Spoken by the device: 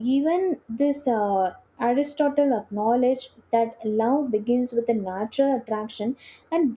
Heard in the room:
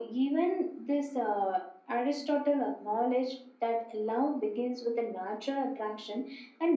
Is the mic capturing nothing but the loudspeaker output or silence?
Yes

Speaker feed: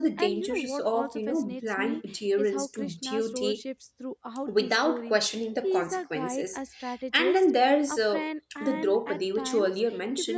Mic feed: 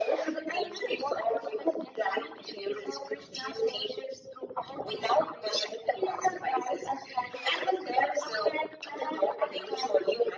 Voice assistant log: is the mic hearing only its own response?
Yes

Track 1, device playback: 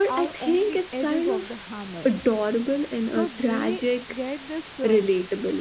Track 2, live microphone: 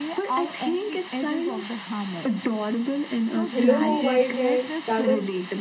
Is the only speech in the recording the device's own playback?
No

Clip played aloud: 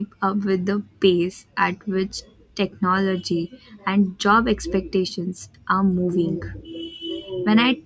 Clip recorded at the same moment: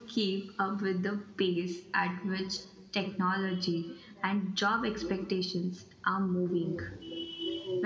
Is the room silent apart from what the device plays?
Yes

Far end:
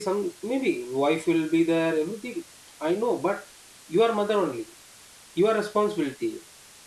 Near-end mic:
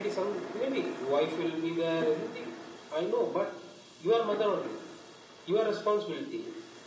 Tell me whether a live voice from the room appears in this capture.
No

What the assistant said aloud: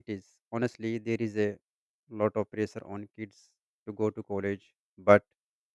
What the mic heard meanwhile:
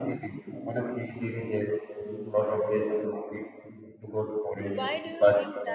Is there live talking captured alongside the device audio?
Yes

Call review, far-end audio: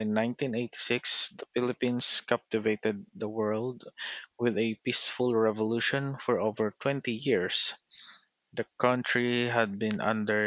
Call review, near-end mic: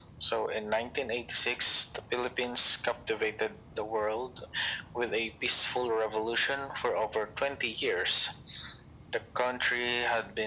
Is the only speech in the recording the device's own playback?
Yes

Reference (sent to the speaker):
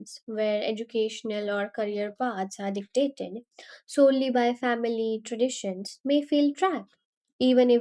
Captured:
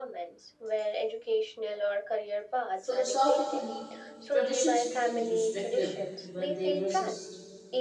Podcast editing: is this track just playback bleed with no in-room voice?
No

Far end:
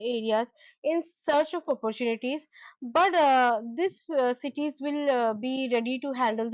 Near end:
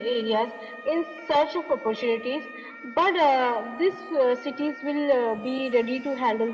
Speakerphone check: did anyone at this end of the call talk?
No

